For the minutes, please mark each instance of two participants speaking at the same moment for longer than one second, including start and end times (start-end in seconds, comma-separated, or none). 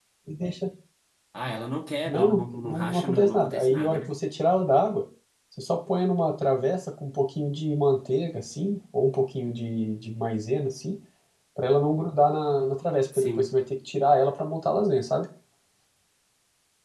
2.1-4.1